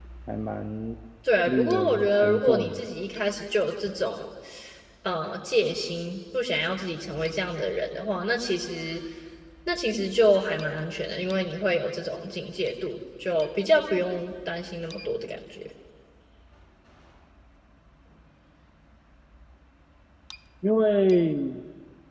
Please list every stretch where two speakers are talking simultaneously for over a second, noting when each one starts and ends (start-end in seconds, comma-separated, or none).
1.5-2.8